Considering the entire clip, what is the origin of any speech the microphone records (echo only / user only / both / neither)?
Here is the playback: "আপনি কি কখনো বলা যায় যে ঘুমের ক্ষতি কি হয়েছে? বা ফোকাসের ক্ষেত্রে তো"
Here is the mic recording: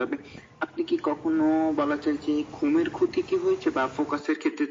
echo only